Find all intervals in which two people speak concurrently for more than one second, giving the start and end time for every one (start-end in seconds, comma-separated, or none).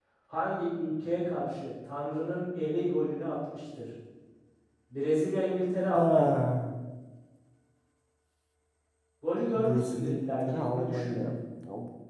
9.6-11.3